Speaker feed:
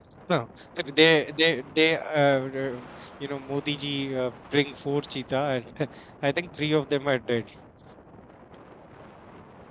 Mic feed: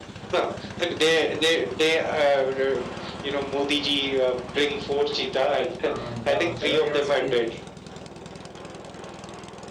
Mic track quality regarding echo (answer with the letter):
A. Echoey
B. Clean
A